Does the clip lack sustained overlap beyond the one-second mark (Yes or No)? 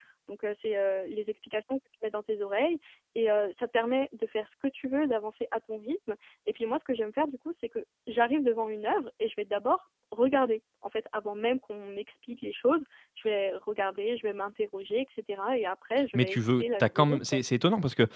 No